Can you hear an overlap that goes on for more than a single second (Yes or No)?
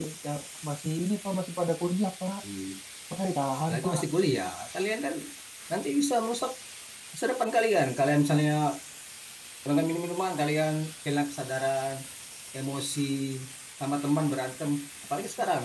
No